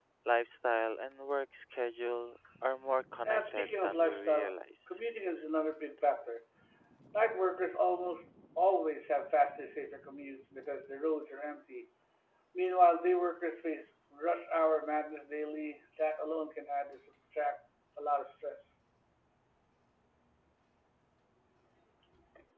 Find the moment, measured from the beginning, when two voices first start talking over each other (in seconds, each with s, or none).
3.2 s